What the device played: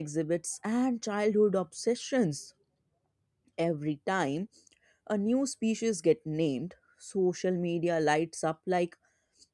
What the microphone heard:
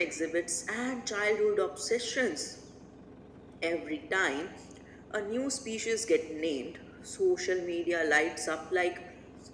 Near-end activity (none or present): none